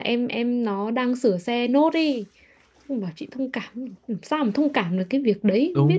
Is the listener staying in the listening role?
No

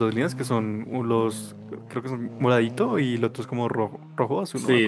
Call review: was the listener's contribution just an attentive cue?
No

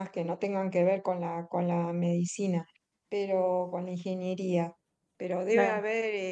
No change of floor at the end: Yes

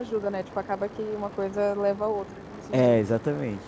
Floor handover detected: Yes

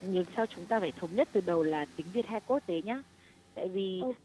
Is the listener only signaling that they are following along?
Yes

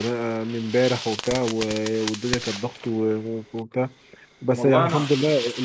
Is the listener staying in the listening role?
Yes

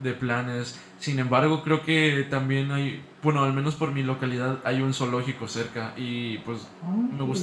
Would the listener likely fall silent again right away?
Yes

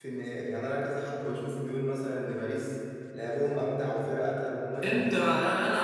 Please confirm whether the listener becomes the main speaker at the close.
Yes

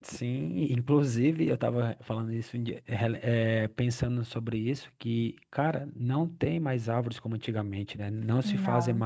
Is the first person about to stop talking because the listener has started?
No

